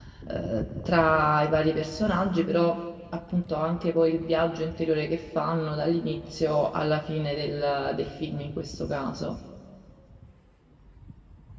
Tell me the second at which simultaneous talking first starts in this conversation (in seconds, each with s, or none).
none